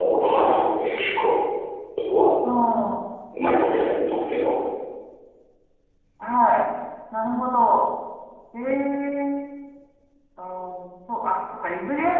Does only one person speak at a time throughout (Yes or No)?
Yes